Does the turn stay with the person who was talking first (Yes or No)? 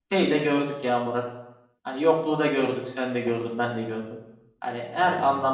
Yes